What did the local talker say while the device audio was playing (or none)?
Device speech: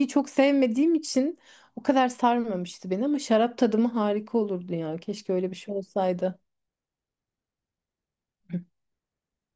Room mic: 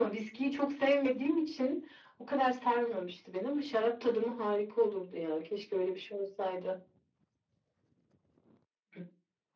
none